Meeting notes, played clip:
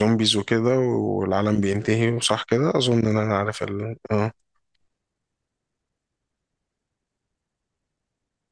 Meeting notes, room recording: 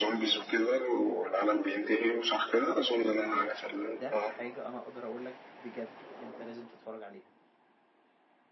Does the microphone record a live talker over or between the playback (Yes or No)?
Yes